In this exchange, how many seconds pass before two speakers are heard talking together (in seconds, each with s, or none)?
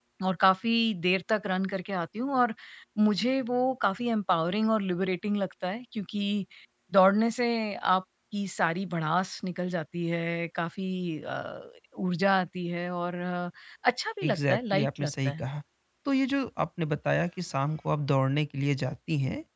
14.2 s